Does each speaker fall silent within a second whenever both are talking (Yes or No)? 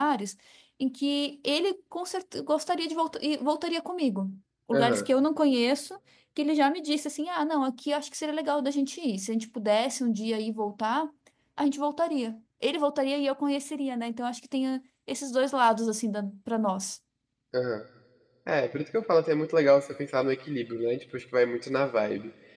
Yes